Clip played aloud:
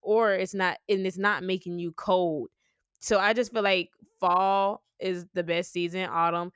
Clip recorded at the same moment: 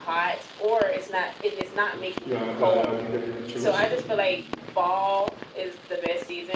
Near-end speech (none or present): present